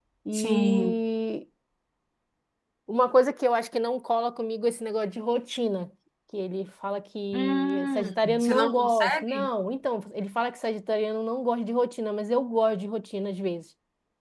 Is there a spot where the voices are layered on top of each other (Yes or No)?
Yes